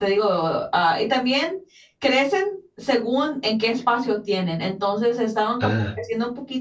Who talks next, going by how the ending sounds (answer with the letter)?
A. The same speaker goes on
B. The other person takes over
A